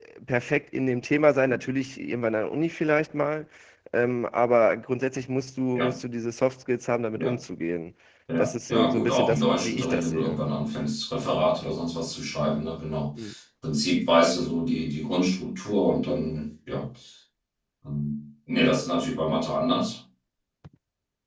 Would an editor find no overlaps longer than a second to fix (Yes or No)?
No